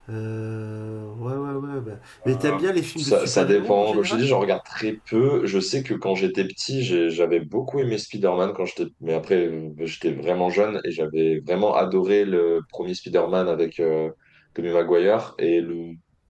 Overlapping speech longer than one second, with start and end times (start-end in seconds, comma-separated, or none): 3.0-4.2